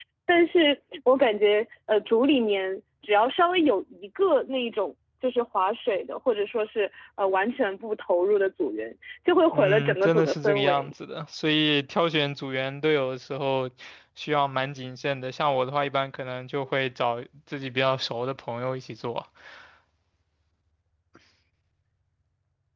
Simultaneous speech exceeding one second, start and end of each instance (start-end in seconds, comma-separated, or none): 9.5-10.9